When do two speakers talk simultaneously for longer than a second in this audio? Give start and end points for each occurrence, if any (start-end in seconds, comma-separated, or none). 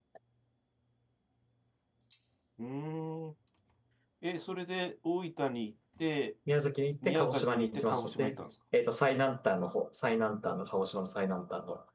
7.0-8.4